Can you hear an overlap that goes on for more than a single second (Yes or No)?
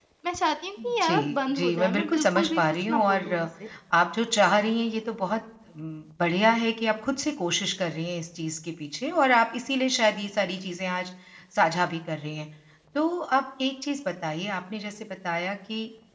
Yes